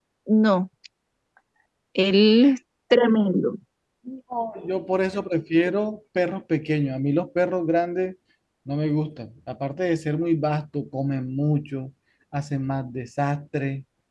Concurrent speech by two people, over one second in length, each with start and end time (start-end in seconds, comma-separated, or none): none